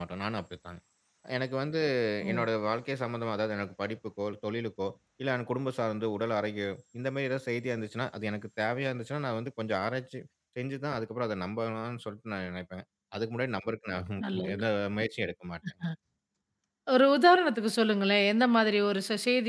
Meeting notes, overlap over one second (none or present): none